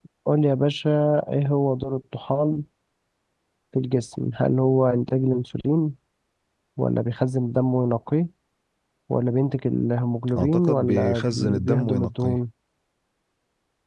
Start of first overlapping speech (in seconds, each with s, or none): 10.4 s